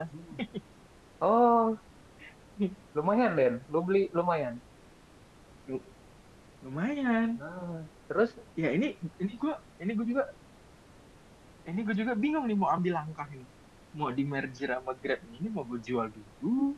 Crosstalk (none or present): none